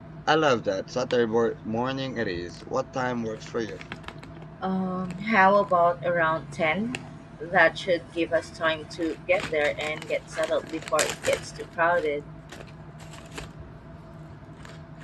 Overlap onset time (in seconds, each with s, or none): none